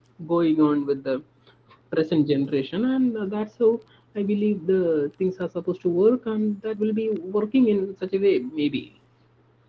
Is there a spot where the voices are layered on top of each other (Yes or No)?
No